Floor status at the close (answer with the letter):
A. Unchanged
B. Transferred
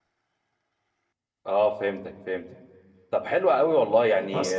A